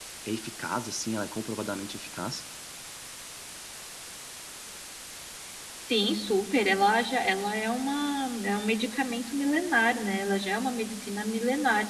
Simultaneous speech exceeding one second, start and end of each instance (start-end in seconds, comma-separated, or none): none